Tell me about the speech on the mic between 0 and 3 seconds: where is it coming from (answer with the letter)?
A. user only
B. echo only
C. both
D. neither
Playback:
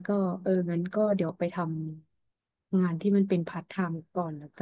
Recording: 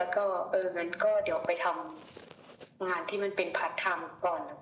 B